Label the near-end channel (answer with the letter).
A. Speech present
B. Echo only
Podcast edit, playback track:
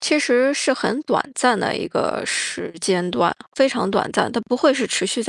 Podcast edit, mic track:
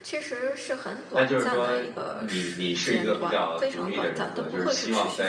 A